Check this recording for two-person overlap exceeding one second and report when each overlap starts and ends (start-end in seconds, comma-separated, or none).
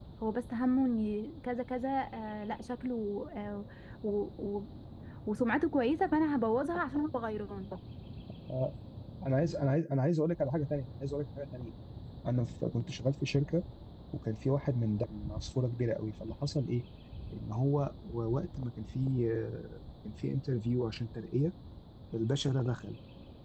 none